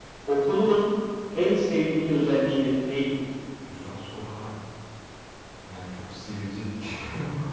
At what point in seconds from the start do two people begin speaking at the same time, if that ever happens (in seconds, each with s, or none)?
none